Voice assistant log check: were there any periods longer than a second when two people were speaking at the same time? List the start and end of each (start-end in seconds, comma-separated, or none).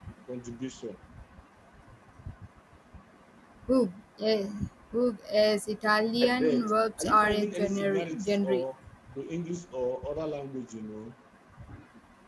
6.2-8.6